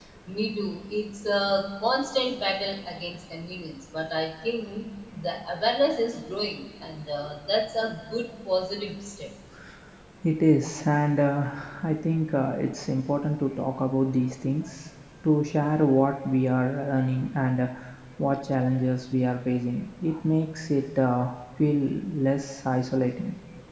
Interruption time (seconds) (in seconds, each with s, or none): none